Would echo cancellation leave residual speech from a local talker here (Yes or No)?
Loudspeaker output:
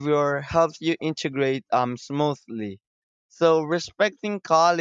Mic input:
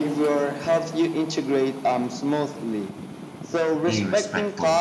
Yes